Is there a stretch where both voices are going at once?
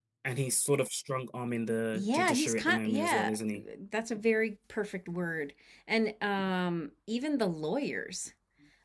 Yes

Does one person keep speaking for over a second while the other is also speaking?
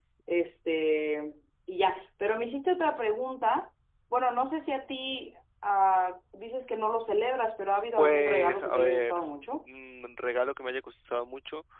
Yes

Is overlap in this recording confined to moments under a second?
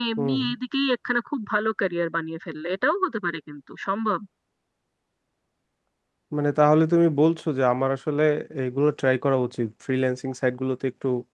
Yes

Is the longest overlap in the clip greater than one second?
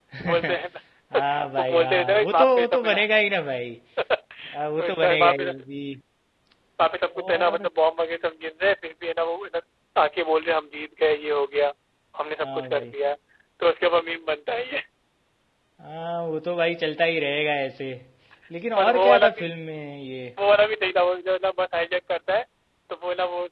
Yes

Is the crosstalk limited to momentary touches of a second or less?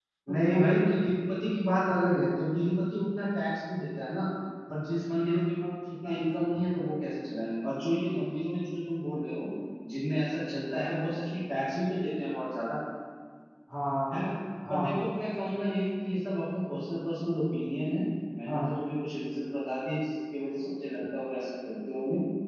Yes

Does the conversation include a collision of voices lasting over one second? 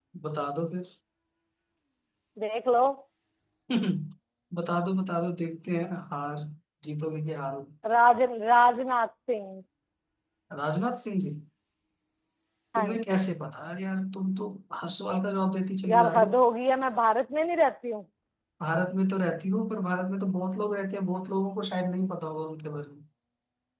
No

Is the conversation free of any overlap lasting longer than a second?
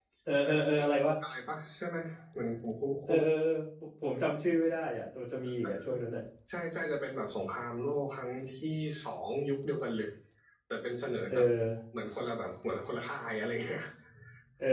Yes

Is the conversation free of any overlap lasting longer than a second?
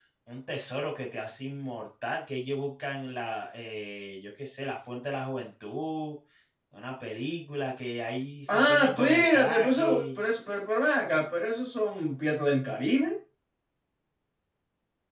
No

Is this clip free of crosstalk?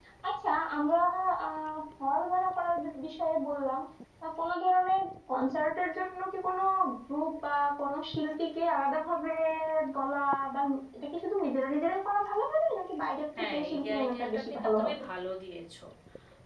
No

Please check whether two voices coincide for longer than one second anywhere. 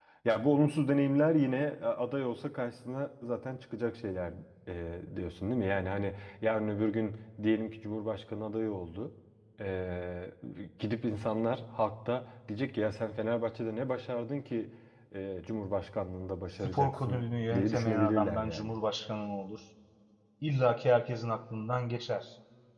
Yes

